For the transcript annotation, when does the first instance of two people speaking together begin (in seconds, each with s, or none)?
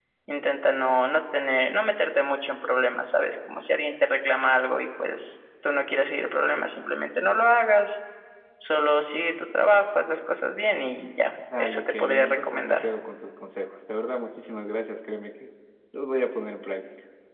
11.5 s